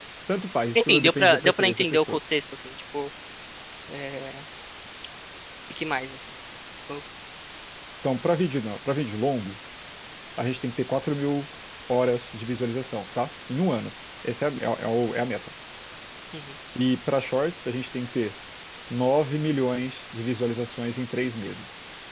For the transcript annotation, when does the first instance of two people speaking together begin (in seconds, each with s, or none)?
0.8 s